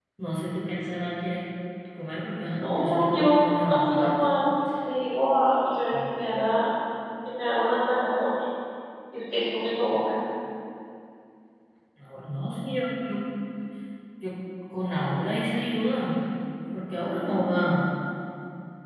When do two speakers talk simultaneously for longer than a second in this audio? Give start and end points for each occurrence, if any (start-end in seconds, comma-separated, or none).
2.5-4.1